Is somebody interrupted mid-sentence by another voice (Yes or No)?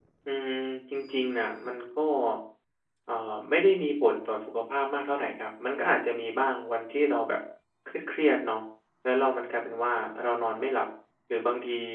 No